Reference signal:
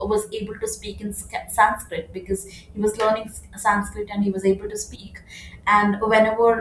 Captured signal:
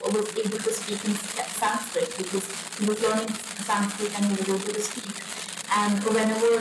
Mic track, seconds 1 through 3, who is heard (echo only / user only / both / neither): echo only